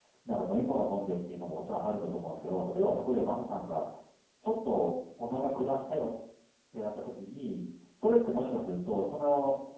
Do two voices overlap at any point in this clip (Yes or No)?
No